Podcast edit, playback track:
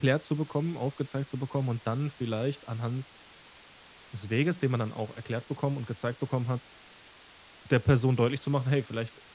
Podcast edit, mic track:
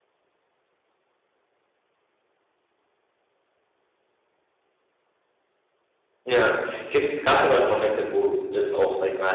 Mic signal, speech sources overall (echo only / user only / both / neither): user only